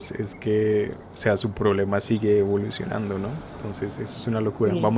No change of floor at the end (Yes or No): Yes